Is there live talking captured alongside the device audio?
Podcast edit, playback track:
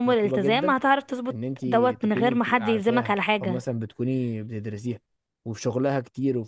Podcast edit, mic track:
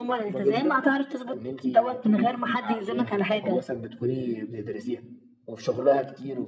No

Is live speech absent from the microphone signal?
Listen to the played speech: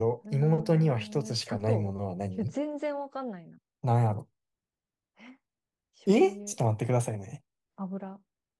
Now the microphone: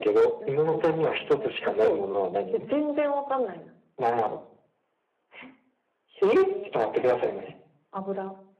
Yes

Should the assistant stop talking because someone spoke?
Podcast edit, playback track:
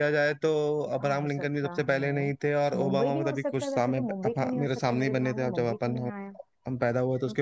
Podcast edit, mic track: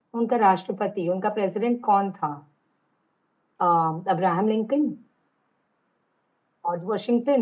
Yes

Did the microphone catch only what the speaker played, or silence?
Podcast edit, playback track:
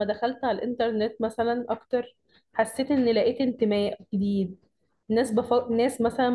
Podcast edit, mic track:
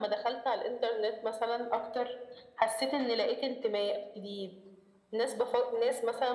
Yes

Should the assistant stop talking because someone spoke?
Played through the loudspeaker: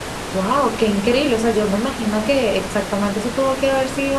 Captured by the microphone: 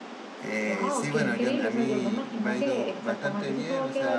Yes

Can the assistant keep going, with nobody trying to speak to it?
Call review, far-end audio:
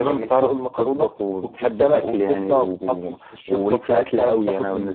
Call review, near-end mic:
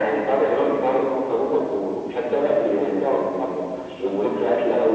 Yes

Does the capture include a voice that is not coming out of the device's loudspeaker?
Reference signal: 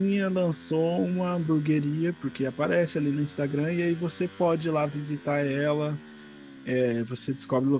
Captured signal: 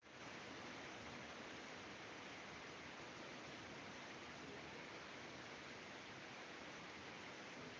No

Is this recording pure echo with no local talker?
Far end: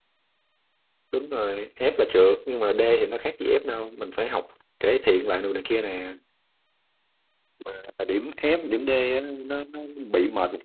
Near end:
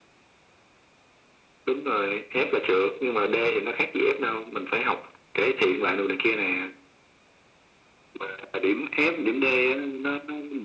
Yes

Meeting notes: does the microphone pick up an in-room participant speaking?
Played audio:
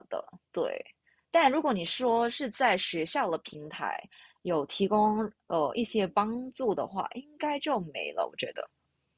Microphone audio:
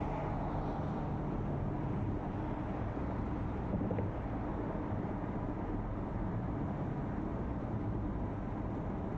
No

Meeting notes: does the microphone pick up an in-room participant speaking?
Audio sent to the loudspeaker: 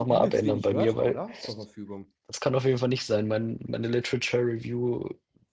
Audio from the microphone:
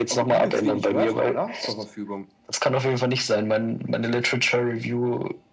No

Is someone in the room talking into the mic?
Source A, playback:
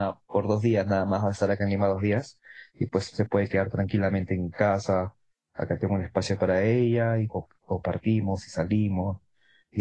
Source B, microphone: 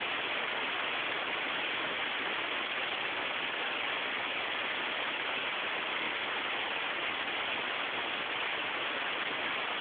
No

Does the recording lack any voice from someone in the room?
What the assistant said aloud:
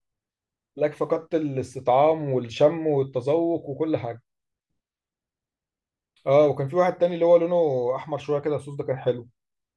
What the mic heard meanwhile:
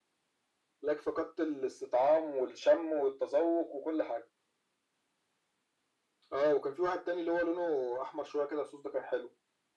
Yes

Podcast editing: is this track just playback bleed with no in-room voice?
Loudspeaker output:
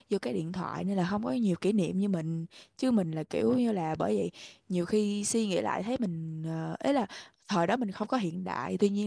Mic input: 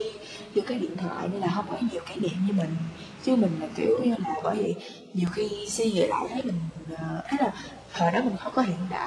Yes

